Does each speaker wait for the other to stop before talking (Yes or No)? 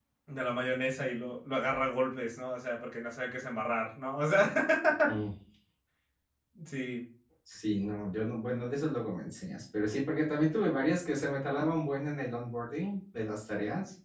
Yes